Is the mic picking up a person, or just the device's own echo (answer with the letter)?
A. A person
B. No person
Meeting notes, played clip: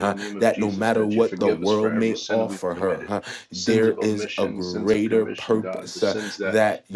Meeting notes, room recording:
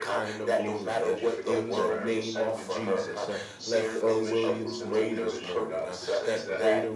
A